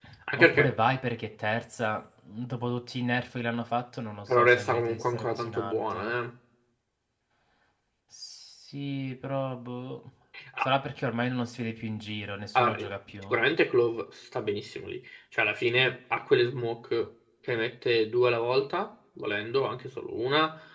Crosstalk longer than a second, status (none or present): present